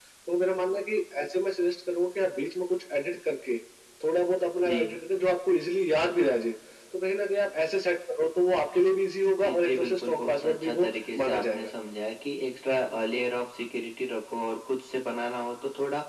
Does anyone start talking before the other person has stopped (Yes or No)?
Yes